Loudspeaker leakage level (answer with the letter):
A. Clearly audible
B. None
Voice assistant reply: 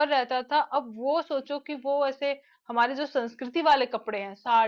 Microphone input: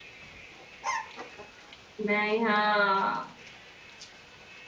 B